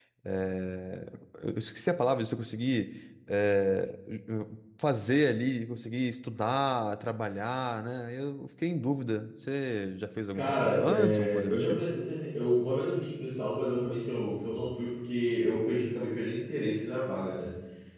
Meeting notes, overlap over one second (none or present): present